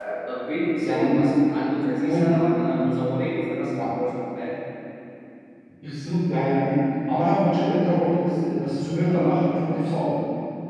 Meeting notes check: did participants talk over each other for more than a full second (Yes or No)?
No